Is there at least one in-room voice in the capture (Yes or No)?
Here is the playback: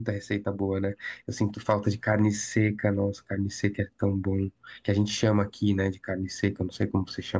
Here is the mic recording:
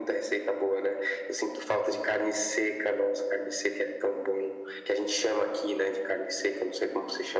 No